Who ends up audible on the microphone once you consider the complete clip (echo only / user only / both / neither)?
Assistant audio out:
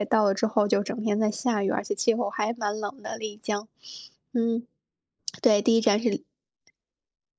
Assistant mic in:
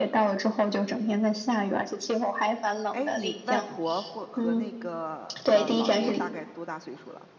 both